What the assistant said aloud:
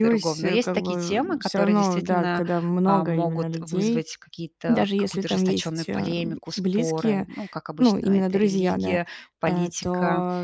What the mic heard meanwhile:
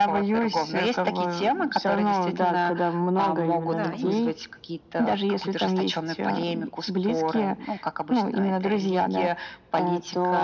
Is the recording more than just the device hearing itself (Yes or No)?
Yes